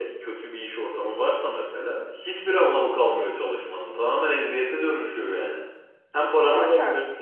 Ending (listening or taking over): listening